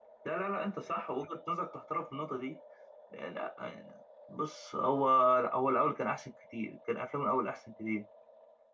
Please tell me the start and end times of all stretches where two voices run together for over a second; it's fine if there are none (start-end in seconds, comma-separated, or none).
none